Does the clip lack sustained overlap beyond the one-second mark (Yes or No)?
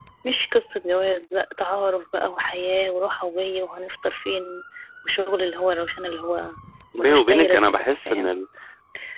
No